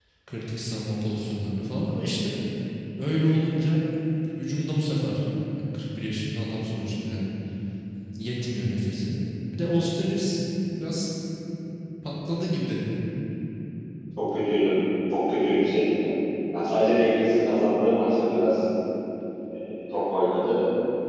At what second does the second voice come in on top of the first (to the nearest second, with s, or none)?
none